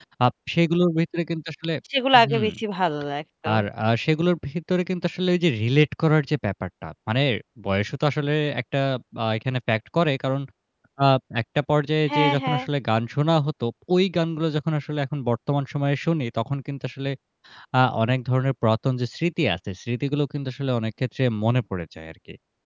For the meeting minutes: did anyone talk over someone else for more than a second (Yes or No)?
No